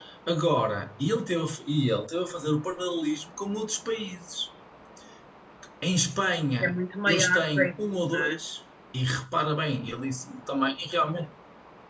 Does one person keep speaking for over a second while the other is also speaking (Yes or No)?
Yes